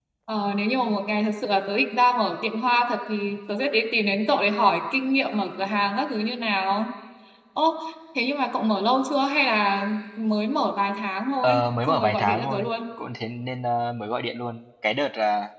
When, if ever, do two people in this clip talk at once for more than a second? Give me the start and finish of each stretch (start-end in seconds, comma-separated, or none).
11.4-12.7